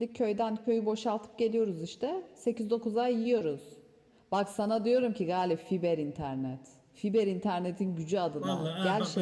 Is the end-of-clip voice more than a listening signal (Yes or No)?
Yes